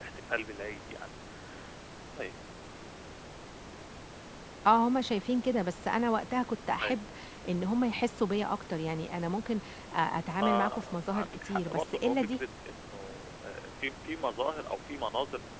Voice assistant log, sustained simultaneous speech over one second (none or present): present